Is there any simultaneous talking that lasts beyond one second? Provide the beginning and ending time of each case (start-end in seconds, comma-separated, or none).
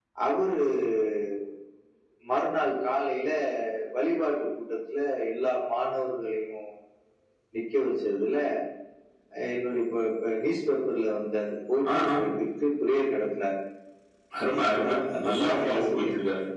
14.6-16.1